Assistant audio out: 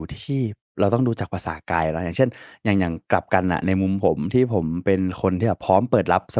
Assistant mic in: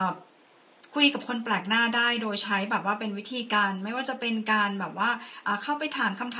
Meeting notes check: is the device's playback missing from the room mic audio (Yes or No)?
Yes